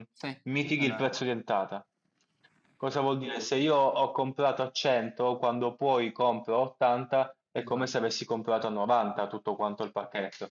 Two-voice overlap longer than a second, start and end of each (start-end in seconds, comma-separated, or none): none